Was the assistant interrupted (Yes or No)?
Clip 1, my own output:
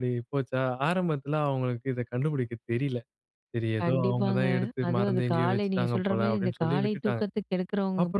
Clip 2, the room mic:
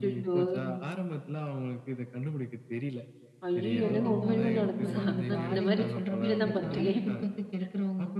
Yes